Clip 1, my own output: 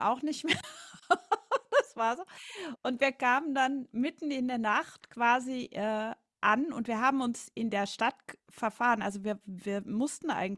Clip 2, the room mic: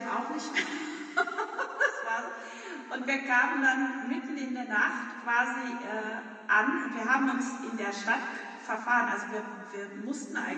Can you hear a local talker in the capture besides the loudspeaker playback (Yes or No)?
No